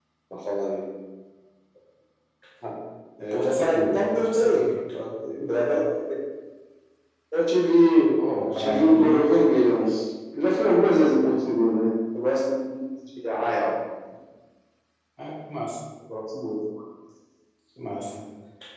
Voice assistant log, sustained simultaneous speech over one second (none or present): present